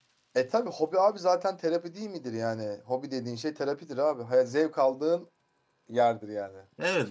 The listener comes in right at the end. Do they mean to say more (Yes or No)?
Yes